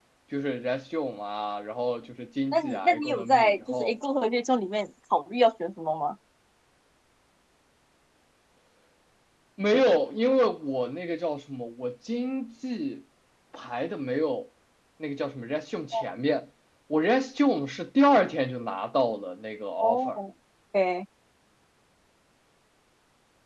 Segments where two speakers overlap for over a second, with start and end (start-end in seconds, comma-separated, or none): 2.5-3.9